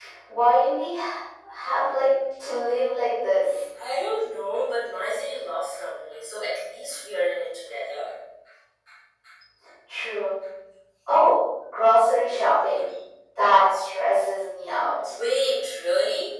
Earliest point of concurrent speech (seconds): none

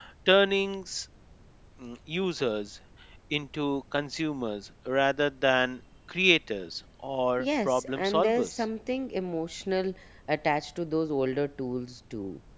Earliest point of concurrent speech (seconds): 7.4 s

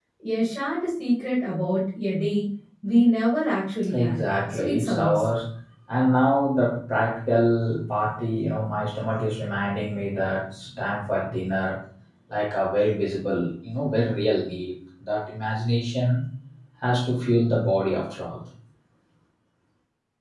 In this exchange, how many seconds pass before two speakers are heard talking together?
3.9 s

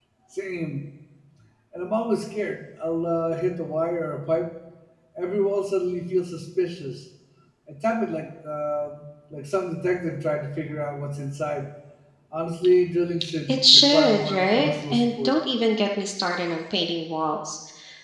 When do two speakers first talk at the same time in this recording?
13.5 s

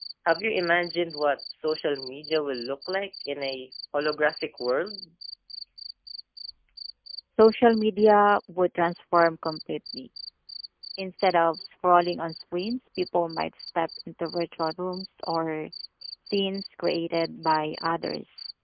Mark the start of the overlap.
none

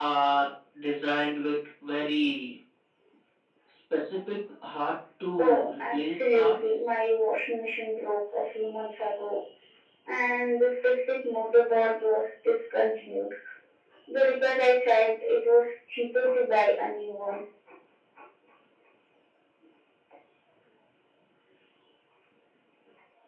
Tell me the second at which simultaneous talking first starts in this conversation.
5.4 s

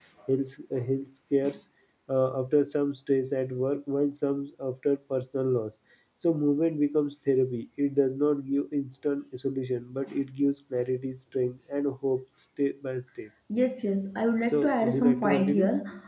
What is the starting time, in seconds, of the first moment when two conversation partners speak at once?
14.5 s

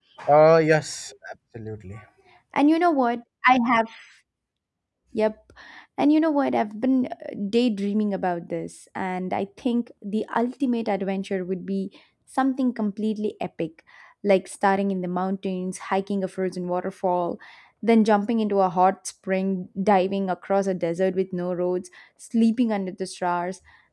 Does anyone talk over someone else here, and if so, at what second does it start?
none

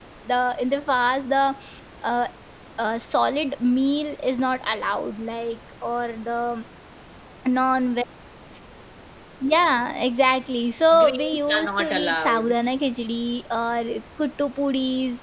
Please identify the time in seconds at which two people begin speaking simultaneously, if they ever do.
10.9 s

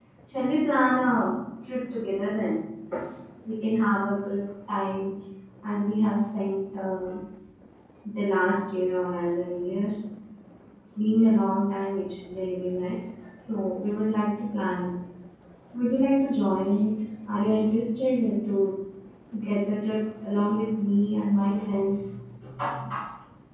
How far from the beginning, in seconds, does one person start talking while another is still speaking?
none

